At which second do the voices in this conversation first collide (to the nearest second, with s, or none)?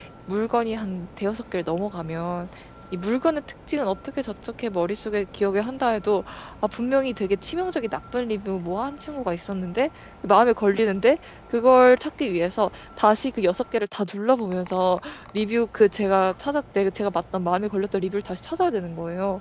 none